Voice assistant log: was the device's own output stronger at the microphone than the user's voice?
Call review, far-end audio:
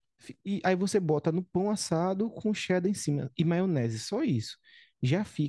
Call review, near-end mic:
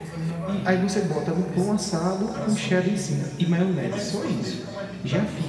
Yes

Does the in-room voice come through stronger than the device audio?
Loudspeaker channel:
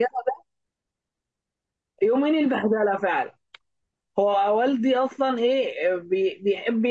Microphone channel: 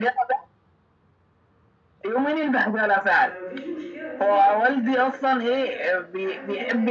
No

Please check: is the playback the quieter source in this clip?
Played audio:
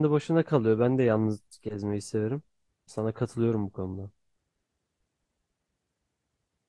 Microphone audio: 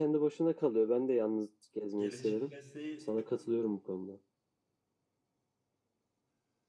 No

